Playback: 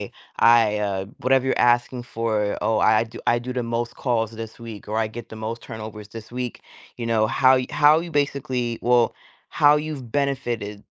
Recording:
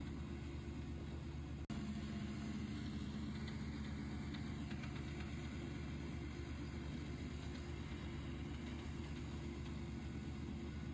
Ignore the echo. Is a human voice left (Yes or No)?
No